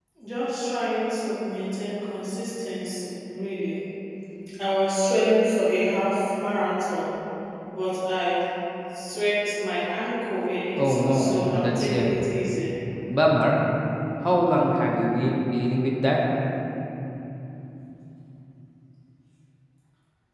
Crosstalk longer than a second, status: present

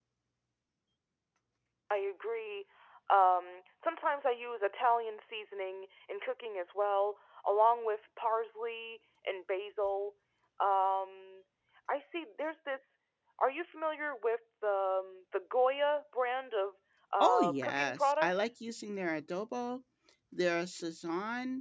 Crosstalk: present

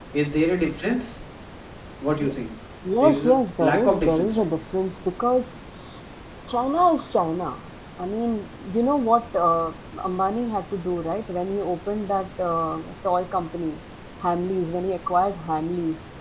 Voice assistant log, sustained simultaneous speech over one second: present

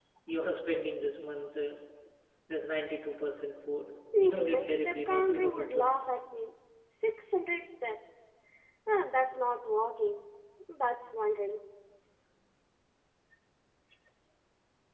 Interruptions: present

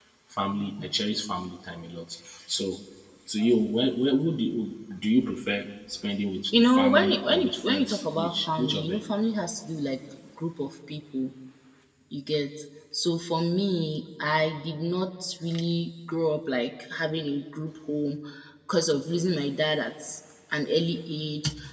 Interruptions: present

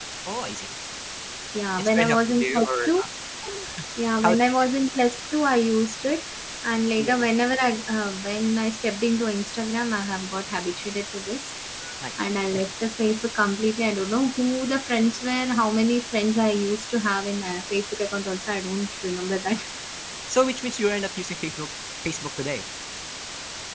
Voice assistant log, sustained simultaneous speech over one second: present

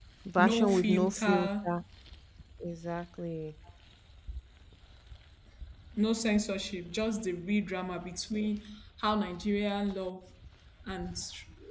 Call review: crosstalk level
present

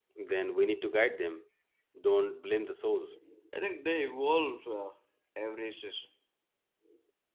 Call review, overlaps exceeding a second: none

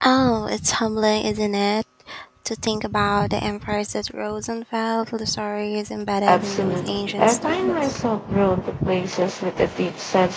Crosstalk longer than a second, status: present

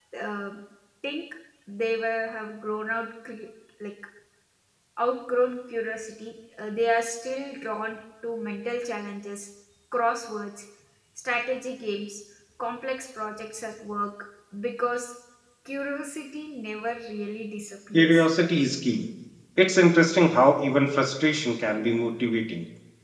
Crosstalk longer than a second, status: none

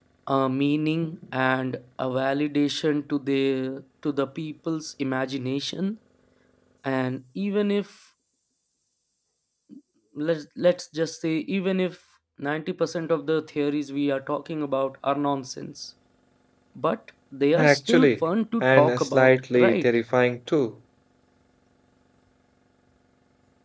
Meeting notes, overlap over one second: present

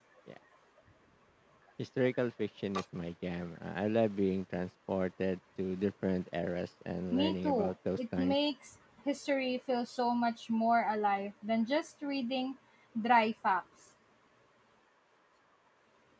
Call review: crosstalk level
present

